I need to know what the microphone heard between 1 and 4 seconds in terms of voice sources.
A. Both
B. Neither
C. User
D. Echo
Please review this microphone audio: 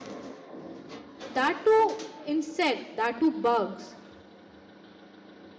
C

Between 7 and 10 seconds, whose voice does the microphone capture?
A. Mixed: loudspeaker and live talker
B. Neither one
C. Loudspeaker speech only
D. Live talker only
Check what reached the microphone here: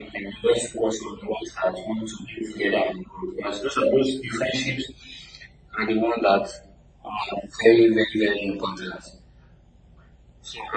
C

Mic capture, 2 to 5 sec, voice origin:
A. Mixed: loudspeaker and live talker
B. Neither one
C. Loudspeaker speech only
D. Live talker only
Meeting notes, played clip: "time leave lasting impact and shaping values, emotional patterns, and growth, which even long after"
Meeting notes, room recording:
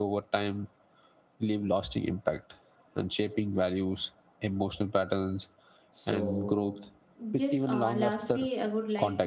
C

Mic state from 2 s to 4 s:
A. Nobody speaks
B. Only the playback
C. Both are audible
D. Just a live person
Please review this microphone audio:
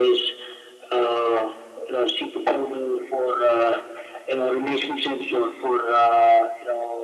B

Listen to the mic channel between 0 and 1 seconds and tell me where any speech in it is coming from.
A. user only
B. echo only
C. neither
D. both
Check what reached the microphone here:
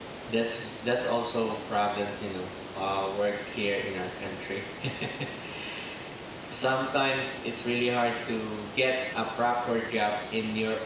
A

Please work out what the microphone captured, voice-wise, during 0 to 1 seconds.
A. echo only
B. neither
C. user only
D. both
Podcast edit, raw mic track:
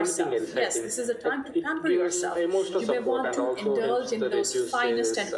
D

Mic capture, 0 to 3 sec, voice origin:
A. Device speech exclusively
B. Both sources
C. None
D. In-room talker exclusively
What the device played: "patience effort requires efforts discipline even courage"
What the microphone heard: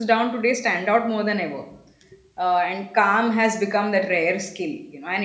D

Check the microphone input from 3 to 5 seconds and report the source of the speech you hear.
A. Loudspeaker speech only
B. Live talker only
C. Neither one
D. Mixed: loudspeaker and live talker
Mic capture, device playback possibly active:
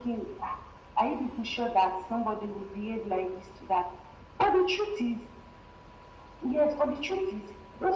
A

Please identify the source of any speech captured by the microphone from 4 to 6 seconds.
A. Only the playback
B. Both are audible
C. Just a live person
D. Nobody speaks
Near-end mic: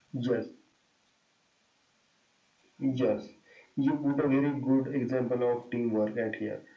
A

